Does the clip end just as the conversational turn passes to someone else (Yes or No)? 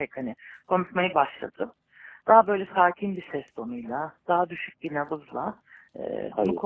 No